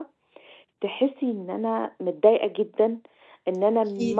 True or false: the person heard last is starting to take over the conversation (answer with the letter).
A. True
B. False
B